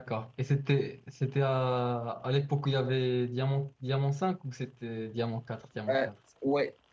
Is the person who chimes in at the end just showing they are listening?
No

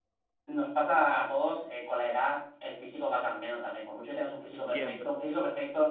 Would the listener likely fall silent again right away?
Yes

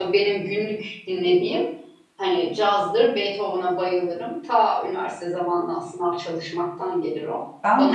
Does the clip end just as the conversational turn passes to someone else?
Yes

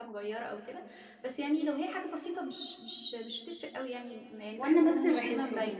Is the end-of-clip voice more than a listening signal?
Yes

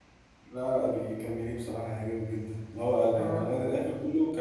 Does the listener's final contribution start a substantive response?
No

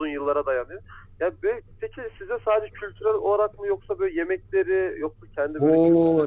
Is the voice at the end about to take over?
Yes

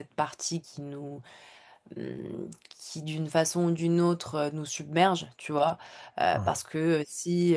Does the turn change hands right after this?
No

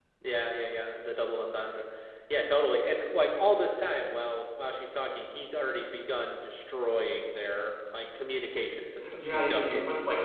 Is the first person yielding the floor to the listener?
Yes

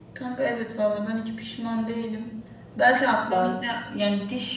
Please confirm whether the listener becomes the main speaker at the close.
No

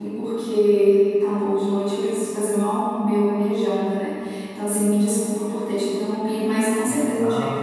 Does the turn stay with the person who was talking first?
Yes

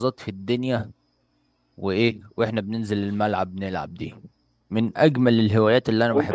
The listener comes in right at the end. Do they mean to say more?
Yes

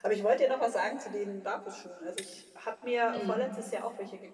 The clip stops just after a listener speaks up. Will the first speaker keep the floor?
Yes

